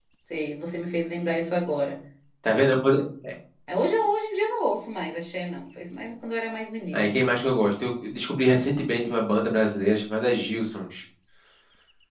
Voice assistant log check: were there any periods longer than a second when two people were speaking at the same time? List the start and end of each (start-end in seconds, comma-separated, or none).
none